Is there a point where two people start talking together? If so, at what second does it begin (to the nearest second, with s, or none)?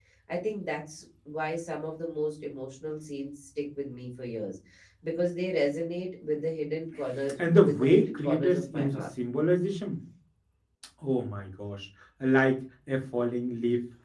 7 s